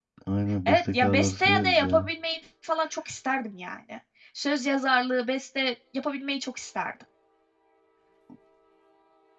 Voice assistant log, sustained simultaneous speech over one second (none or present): present